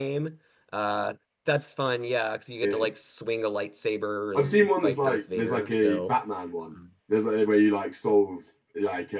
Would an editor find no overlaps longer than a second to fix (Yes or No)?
No